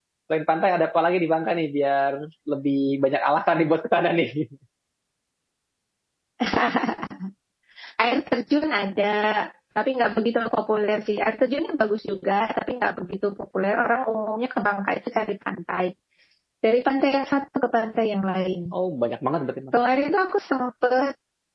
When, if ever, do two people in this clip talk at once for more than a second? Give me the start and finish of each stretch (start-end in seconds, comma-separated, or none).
none